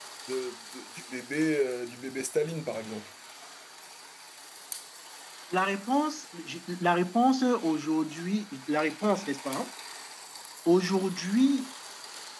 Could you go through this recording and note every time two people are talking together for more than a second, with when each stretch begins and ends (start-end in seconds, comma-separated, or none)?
none